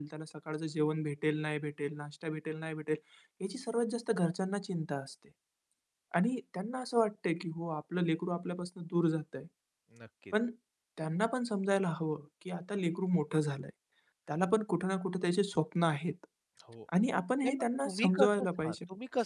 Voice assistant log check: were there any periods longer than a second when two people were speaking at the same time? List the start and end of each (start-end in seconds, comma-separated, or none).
17.4-18.8